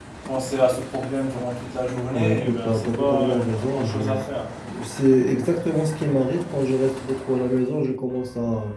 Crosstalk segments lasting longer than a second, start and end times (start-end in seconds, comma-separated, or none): 2.1-4.2